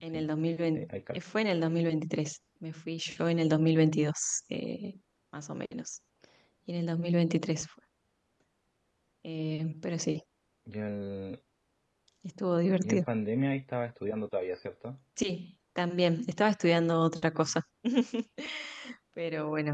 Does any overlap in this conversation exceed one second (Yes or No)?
No